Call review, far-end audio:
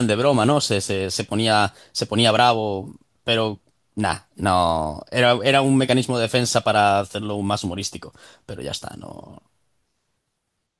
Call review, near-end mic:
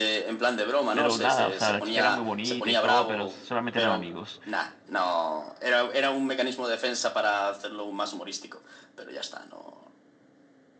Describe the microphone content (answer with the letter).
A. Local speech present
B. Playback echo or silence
A